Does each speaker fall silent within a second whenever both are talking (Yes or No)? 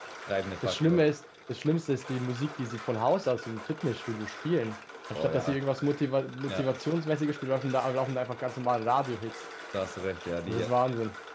Yes